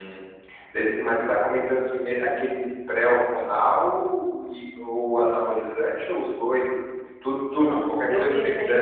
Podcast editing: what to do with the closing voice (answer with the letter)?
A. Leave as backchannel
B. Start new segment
B